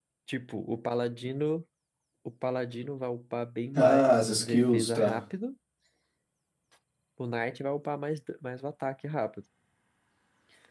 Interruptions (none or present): present